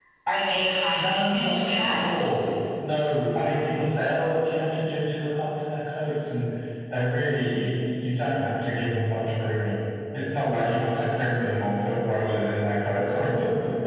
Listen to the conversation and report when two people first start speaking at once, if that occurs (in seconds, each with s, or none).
0.9 s